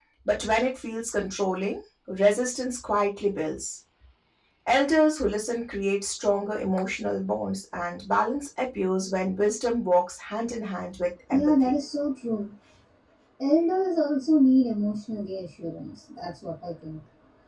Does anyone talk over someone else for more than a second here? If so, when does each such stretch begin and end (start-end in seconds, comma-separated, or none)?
none